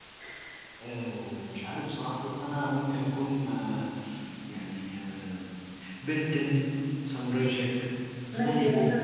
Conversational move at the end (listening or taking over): taking over